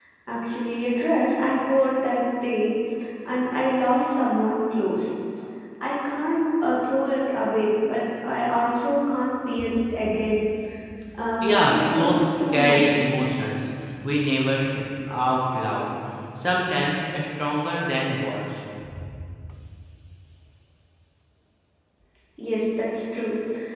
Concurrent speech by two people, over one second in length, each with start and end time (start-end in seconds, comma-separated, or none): 11.4-13.1